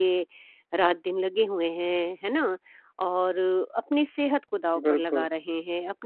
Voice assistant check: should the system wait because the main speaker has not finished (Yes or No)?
Yes